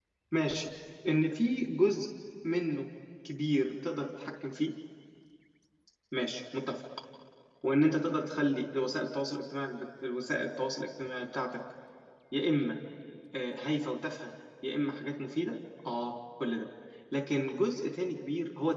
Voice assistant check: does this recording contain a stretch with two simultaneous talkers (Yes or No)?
No